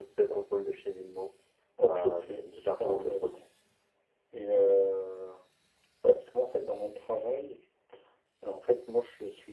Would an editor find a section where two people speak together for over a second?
Yes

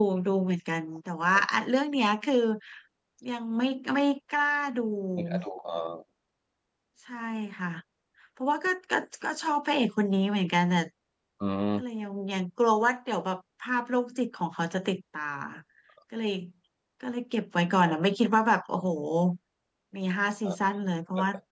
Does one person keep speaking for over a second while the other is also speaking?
No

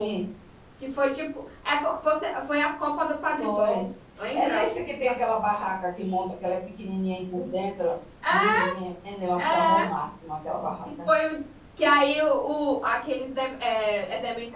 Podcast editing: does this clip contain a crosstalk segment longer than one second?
No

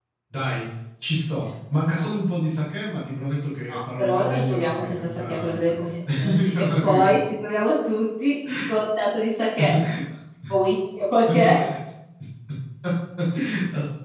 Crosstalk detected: Yes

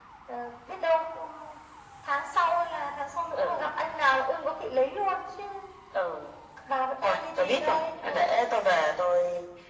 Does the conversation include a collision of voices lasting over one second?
Yes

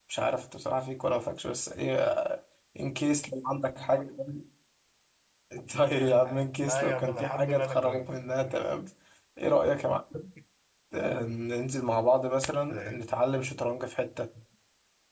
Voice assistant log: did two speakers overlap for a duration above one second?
Yes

